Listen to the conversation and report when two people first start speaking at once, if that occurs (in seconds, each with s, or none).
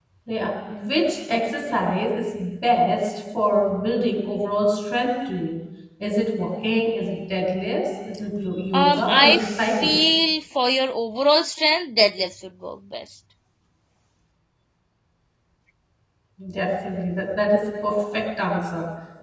8.7 s